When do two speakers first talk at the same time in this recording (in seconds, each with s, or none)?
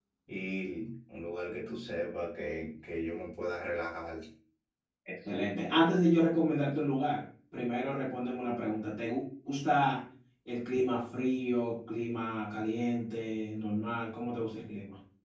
none